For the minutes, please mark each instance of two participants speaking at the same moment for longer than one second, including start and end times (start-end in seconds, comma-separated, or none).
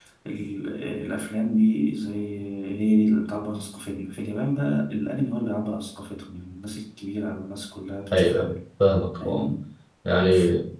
none